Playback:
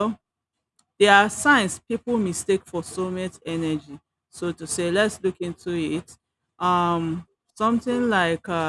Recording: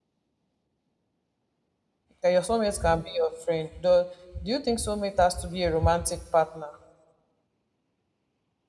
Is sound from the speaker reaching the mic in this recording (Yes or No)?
No